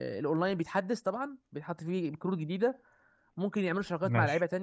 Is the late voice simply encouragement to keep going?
Yes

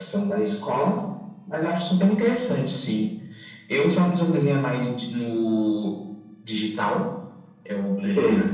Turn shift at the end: No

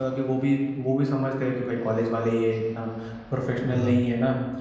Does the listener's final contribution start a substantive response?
No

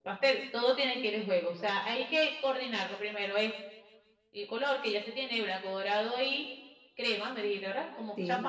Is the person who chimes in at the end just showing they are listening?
Yes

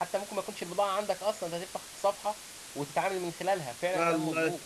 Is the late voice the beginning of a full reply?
Yes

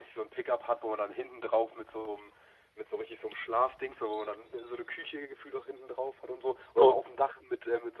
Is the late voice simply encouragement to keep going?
Yes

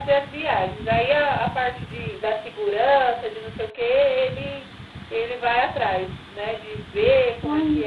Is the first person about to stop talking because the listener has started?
No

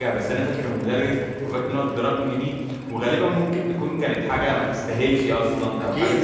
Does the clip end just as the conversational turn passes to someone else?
Yes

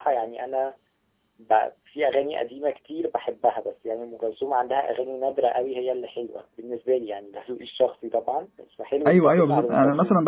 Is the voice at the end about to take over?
Yes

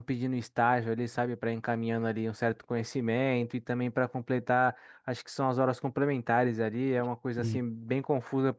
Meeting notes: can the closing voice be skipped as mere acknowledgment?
Yes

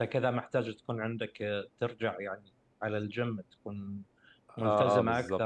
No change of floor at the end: No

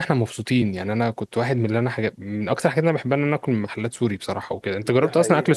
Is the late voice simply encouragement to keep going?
No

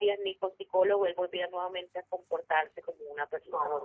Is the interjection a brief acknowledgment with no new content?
No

